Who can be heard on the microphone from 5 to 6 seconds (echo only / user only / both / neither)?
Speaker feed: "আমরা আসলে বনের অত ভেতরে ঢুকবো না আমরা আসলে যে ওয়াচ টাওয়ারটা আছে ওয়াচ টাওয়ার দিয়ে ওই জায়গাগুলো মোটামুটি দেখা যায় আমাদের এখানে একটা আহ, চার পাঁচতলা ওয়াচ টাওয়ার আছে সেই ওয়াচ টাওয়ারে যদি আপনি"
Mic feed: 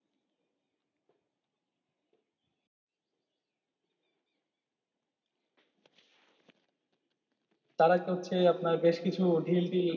neither